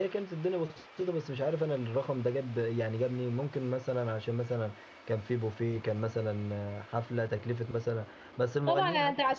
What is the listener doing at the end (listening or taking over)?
taking over